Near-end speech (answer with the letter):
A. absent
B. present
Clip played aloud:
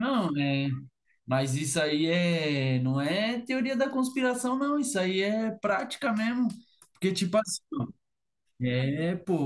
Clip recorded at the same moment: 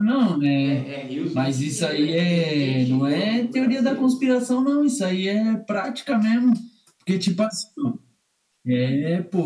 B